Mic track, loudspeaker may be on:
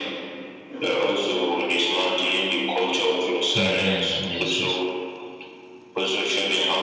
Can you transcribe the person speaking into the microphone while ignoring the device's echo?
Mm-hmm. Yes, yes.

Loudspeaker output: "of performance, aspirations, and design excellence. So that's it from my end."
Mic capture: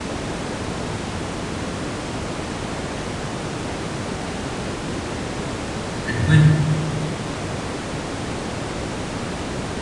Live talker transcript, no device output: And when

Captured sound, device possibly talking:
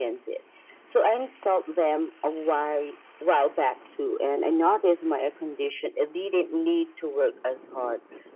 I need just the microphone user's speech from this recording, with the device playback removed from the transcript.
none

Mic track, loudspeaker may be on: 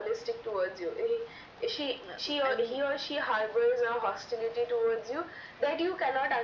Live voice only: uh, I mean

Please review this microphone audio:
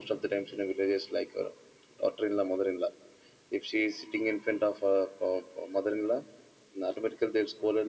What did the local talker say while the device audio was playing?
none

